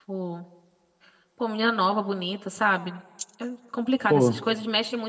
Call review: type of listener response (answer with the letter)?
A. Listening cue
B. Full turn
A